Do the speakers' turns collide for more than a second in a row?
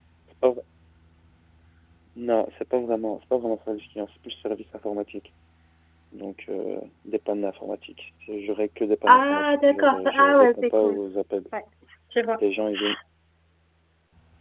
Yes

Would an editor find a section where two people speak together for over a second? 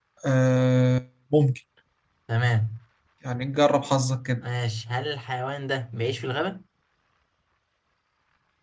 No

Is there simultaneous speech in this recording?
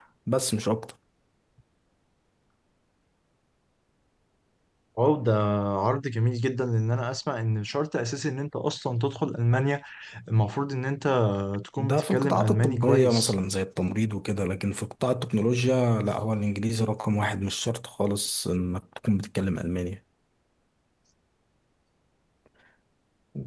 Yes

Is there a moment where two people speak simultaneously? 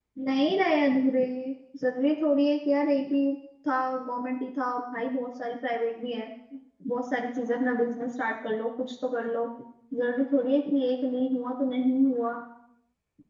No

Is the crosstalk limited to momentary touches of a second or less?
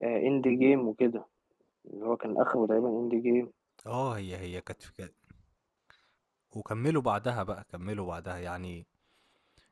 Yes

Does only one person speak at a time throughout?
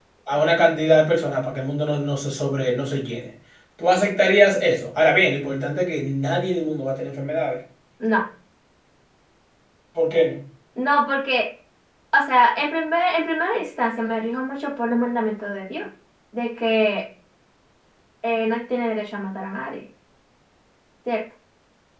Yes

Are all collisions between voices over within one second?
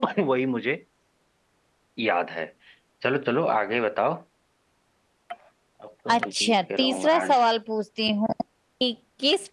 No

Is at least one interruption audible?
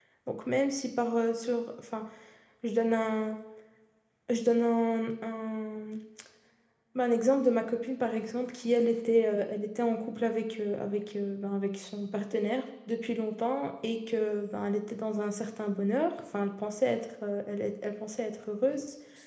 No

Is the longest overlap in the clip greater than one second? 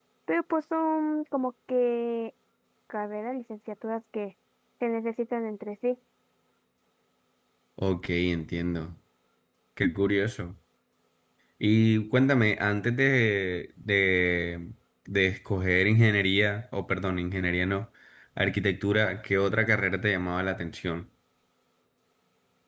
No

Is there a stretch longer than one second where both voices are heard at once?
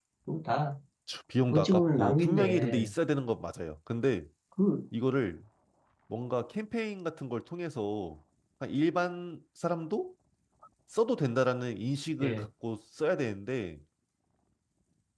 Yes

